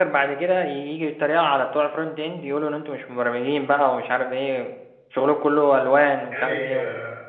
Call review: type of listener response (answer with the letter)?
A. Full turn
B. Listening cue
A